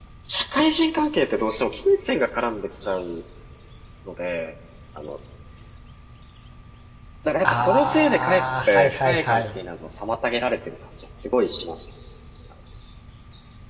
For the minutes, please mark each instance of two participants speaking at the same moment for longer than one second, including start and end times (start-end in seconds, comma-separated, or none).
7.4-9.4